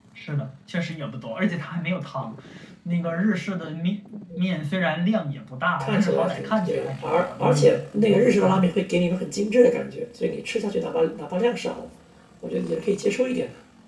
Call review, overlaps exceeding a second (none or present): present